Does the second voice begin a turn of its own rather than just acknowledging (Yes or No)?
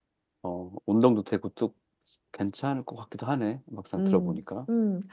Yes